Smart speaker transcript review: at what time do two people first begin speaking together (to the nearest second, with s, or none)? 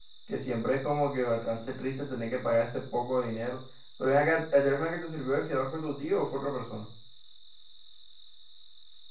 none